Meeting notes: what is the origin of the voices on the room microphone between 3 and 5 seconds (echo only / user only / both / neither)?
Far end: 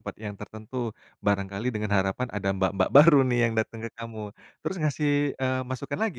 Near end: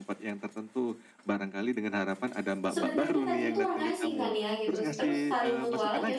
both